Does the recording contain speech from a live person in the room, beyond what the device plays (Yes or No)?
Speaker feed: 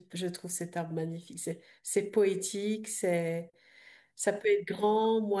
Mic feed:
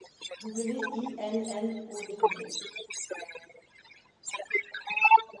Yes